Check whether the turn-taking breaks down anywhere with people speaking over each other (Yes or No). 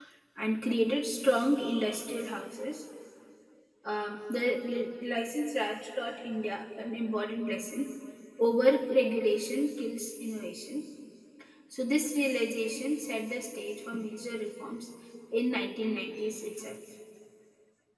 No